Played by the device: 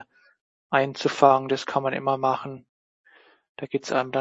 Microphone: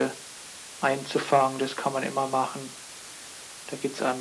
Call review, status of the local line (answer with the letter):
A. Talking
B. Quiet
B